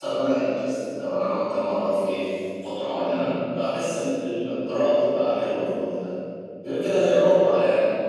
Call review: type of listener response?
listening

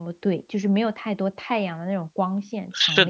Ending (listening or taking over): taking over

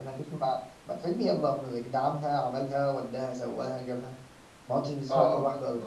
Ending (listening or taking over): taking over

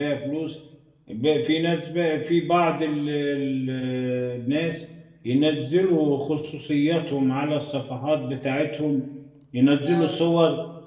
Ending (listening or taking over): listening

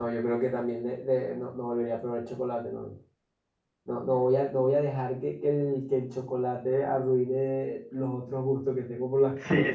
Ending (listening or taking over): taking over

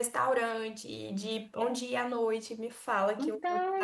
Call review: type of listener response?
taking over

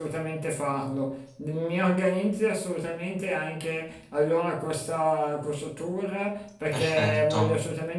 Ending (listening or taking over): listening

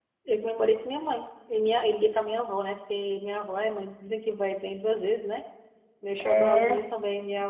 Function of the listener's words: listening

